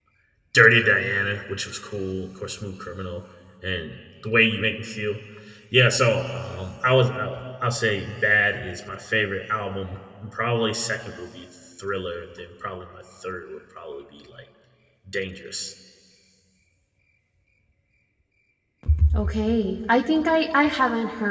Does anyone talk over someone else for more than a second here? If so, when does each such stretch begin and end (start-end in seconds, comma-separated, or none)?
none